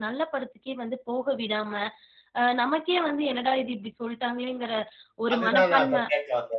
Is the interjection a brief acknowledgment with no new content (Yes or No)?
No